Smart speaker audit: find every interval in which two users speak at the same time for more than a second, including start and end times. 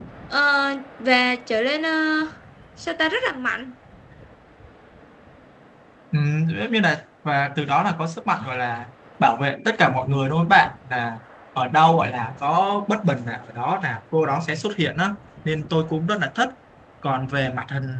none

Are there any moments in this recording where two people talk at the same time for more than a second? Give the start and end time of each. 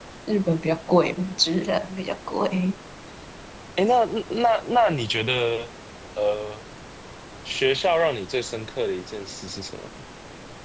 none

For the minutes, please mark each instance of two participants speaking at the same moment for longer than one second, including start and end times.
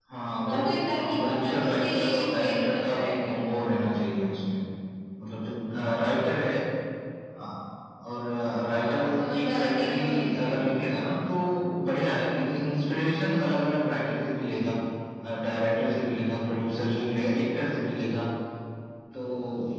1.0-3.3, 8.7-10.5

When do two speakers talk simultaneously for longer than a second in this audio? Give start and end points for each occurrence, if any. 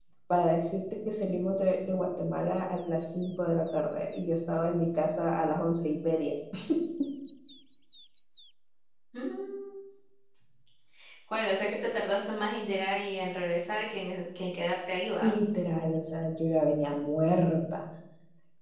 none

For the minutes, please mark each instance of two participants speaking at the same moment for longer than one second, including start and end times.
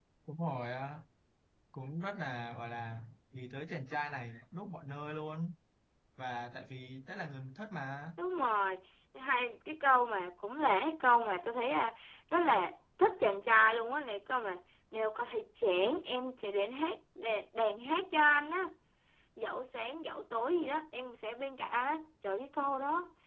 none

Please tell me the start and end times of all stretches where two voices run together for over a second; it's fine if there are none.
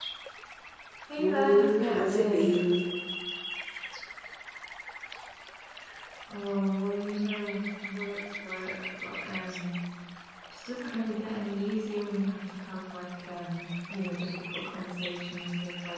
1.2-2.5

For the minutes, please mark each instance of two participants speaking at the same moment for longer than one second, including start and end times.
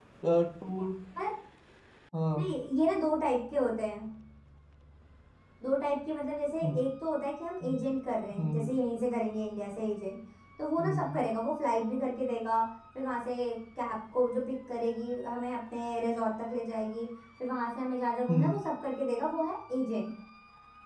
none

